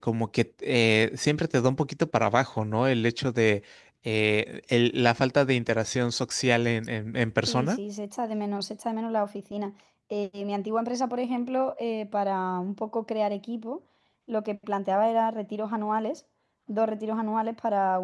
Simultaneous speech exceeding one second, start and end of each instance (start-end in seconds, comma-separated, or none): none